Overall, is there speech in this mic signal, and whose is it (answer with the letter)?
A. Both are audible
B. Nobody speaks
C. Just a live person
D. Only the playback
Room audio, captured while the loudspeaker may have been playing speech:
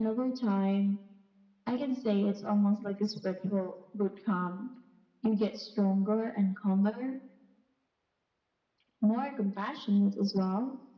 D